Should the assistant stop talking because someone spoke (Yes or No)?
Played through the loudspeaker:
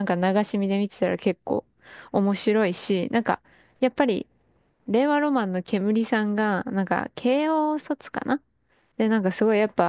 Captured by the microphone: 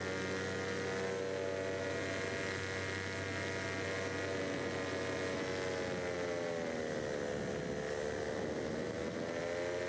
No